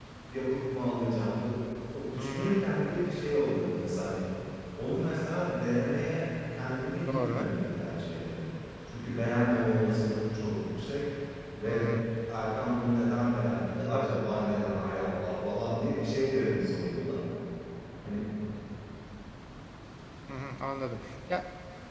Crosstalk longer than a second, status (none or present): none